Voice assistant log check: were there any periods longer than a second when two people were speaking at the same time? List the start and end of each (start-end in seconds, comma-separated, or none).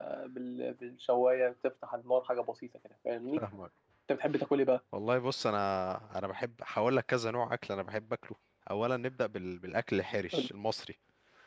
none